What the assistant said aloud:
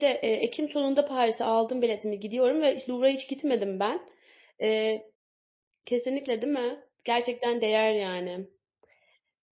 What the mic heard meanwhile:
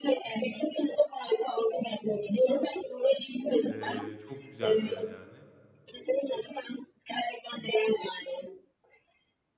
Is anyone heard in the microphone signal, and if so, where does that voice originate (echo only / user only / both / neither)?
both